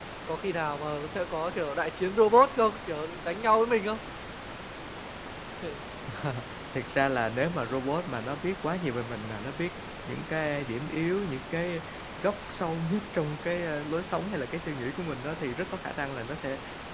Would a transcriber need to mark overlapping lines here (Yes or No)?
No